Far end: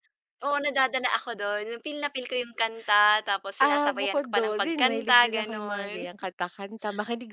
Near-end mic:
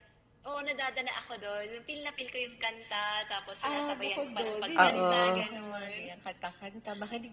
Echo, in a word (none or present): present